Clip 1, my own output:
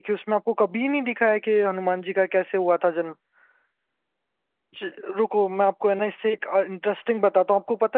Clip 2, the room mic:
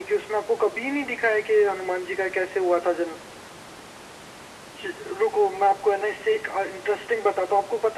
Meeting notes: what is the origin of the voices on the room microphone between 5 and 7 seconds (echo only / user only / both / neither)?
echo only